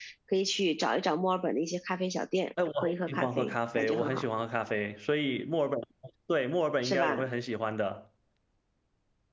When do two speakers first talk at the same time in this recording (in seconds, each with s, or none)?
2.8 s